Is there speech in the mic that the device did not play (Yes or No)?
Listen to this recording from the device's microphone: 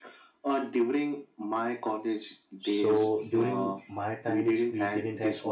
Yes